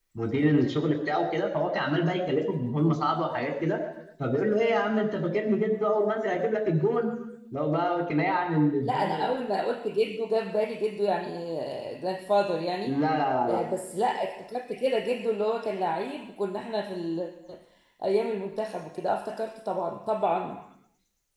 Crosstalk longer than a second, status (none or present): none